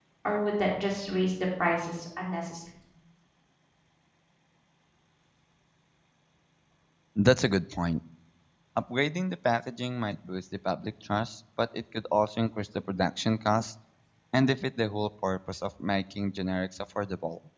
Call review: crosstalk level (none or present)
none